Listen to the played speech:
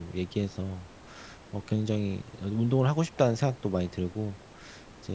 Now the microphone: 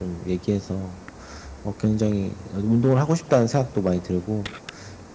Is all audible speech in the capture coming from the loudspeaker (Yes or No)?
Yes